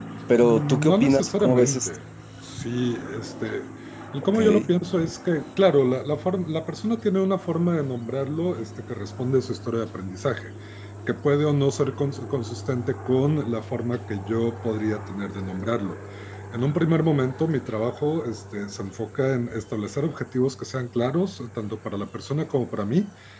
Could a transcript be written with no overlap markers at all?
No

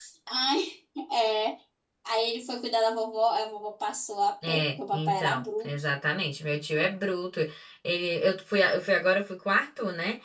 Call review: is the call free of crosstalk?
No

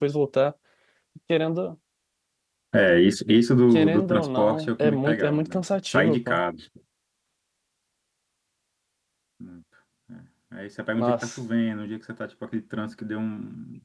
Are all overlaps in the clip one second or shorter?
No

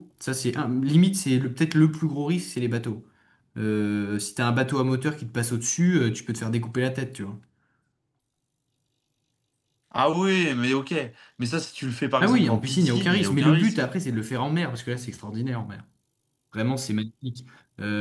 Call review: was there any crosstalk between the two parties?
Yes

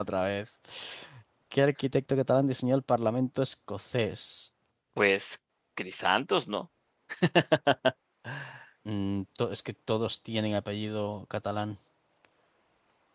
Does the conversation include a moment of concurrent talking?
No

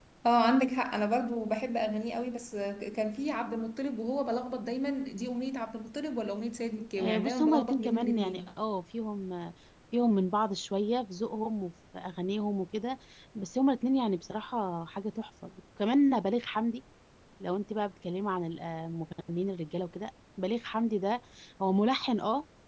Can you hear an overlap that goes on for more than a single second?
Yes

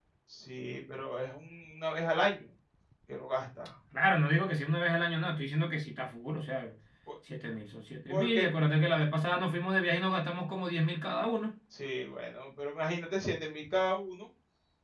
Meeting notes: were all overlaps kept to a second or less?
Yes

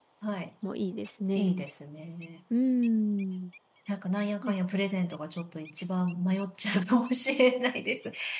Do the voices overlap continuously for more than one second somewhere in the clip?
No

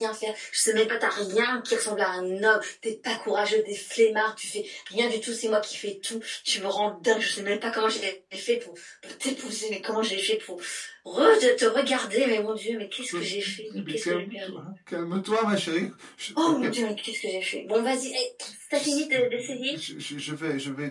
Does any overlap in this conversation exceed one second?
Yes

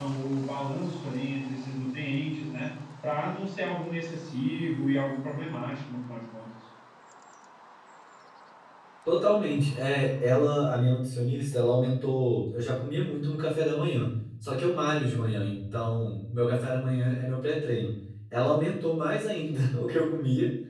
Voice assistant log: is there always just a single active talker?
Yes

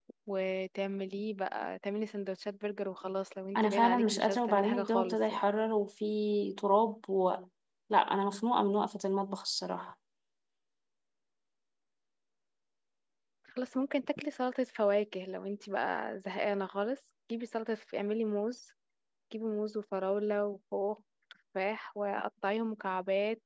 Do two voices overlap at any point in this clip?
Yes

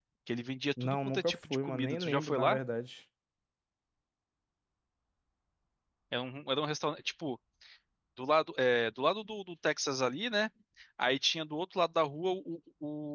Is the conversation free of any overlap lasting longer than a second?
No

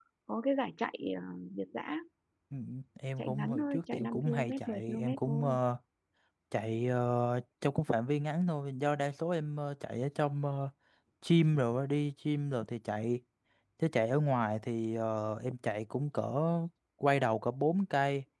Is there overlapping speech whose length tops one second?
Yes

